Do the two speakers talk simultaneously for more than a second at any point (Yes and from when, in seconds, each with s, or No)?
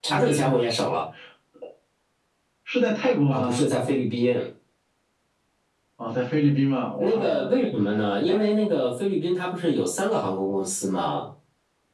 No